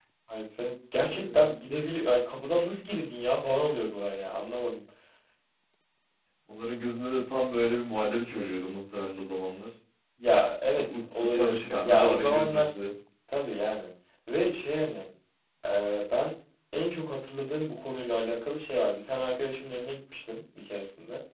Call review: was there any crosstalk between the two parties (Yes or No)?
Yes